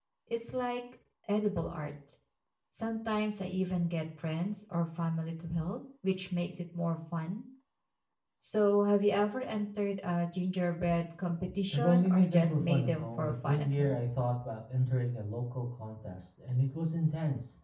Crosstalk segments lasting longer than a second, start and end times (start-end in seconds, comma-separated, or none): 11.7-14.0